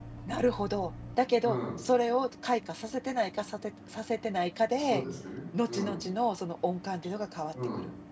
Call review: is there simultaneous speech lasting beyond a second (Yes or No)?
No